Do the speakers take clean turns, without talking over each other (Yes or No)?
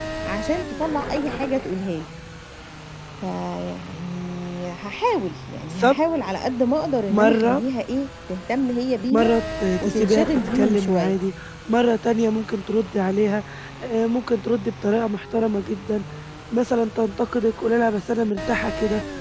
No